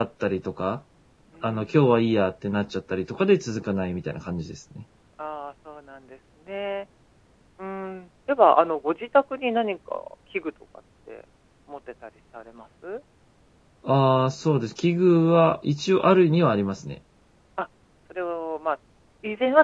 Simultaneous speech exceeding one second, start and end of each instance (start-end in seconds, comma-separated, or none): none